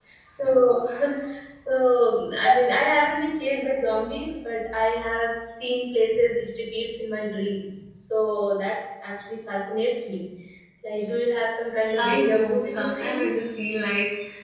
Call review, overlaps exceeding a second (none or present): present